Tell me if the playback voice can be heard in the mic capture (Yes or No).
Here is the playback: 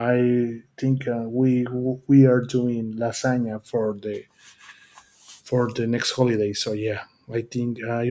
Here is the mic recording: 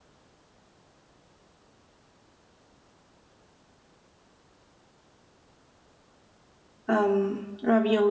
No